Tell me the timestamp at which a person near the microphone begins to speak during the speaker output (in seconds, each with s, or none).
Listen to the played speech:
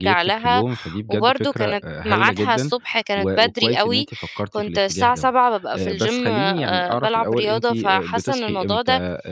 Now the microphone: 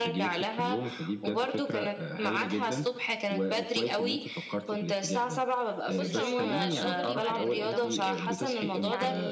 6.0 s